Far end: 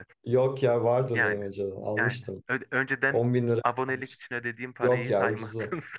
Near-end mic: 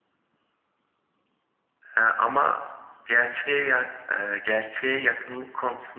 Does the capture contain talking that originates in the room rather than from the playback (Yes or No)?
Yes